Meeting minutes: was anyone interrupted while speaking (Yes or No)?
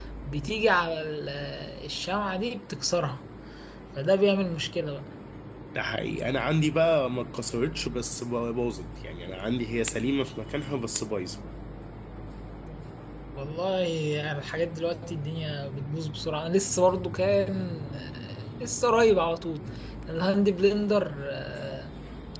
No